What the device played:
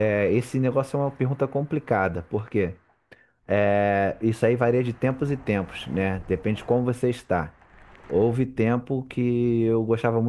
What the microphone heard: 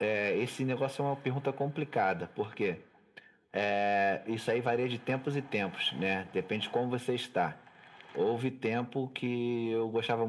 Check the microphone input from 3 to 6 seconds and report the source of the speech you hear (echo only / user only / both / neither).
echo only